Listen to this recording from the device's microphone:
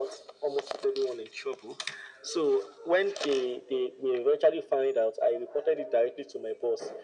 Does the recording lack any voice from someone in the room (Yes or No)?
Yes